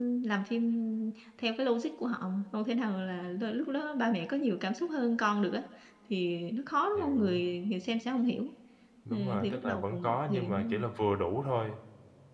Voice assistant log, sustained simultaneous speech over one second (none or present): present